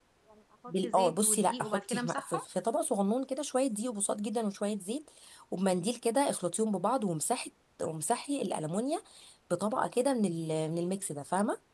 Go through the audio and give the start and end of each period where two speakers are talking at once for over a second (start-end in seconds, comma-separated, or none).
0.7-2.4